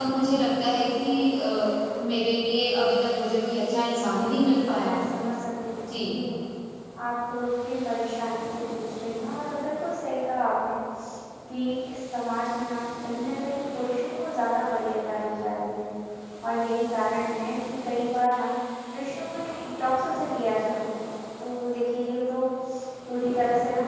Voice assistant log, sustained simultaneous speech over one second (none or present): present